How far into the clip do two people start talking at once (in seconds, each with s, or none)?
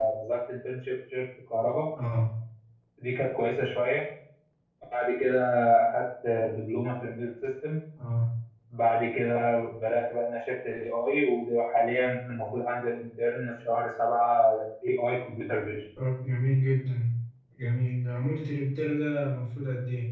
none